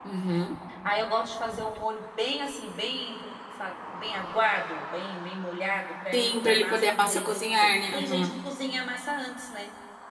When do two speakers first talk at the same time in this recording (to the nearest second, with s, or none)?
6 s